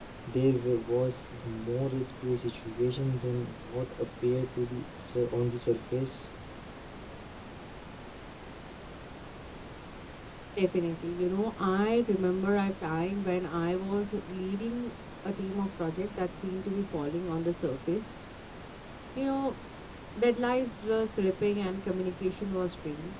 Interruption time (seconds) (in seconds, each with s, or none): none